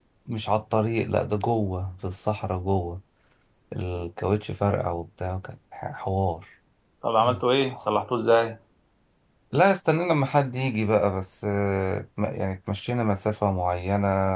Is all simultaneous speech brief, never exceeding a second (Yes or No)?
Yes